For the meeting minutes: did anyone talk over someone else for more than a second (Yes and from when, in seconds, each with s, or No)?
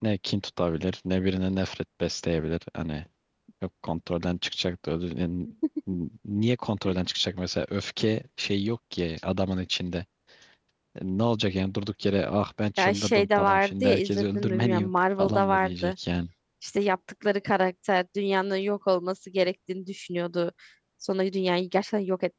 Yes, from 12.8 s